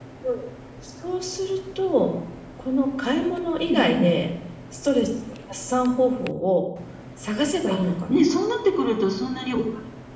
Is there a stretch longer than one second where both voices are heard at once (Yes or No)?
No